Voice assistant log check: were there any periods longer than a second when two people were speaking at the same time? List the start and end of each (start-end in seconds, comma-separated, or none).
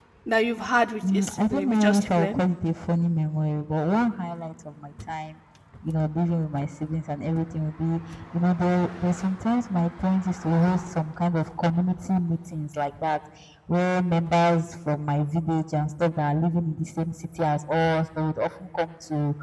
1.1-2.4